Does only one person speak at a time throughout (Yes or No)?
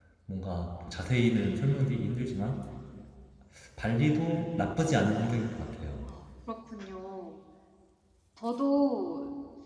Yes